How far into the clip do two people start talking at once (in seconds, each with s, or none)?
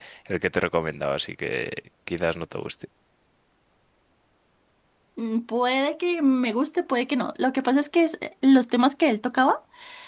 none